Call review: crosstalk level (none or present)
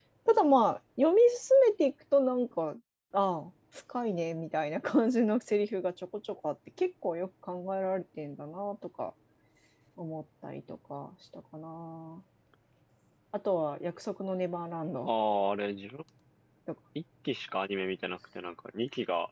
none